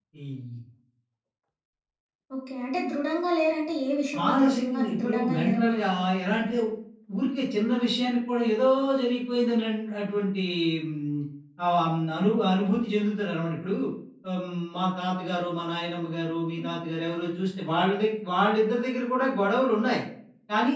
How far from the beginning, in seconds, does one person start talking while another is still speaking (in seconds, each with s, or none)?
4.1 s